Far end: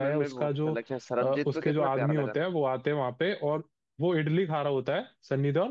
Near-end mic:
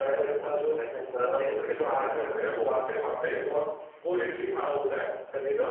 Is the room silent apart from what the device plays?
Yes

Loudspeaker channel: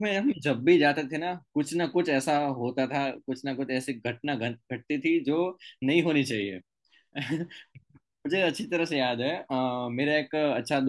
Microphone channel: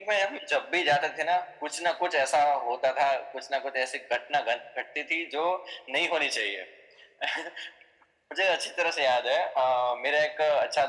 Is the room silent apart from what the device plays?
Yes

